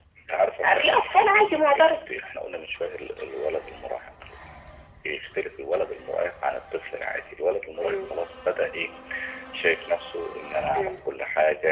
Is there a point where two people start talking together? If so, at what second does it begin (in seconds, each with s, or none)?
0.6 s